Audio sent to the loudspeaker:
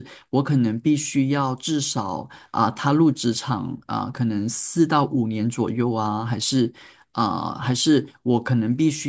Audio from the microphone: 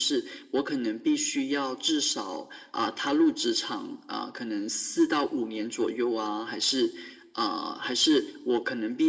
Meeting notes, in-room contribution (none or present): none